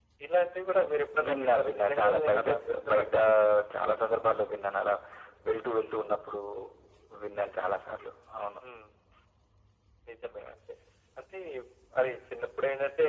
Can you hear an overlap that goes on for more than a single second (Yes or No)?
Yes